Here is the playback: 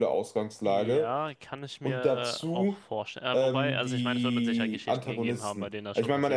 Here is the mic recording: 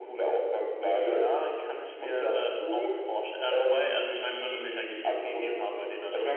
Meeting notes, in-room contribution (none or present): none